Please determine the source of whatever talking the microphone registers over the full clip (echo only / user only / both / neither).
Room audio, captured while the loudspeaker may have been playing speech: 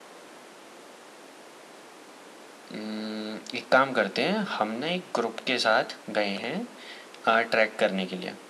echo only